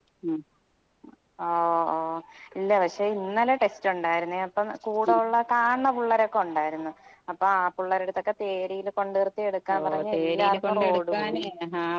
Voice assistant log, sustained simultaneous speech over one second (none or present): present